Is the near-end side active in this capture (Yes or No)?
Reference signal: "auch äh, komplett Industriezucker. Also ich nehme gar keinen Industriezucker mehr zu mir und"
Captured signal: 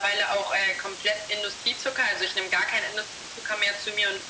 No